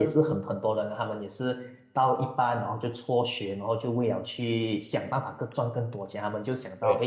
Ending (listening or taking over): listening